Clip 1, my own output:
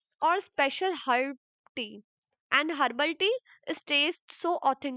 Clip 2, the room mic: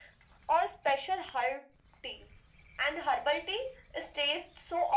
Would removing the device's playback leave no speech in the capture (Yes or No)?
Yes